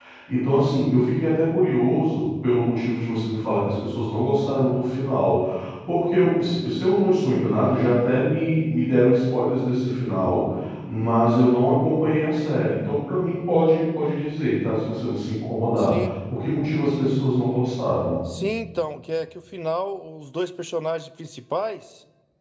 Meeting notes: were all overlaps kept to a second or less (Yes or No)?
Yes